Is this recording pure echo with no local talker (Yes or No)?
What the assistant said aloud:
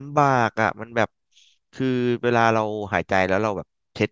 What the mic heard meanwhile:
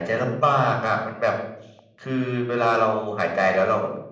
Yes